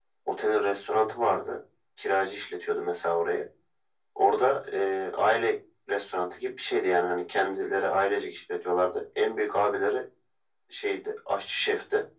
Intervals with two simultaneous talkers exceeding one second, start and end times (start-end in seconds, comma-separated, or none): none